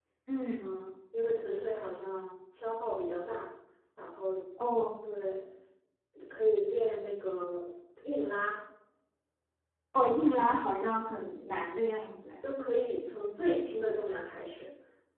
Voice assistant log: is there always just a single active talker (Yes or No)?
Yes